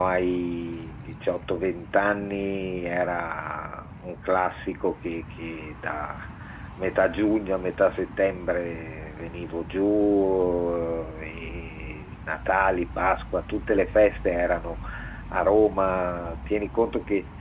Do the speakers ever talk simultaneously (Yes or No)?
No